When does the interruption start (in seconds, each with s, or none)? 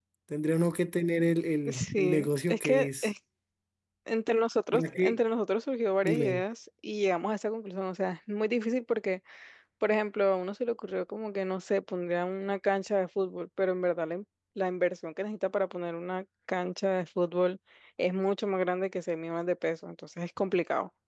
1.7 s